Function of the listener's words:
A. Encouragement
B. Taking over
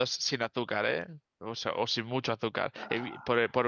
A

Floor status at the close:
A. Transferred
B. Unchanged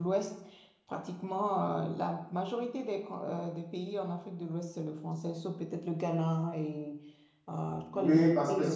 A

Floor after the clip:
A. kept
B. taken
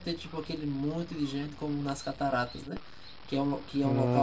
A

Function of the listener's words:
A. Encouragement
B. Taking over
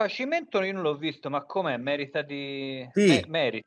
B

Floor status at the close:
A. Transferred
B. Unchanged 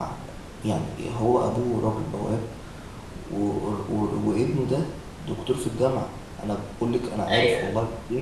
B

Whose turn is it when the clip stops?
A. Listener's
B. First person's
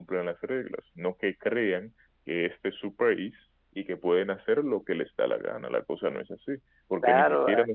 A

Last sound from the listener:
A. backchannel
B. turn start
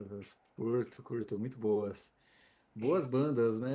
A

